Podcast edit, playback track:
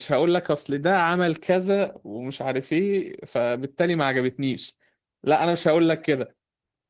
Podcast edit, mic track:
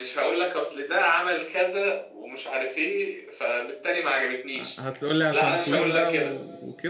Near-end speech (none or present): present